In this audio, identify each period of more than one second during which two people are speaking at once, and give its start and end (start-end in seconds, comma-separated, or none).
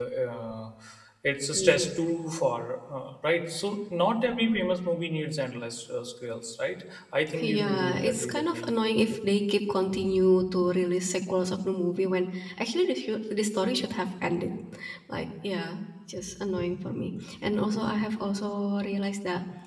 7.4-8.8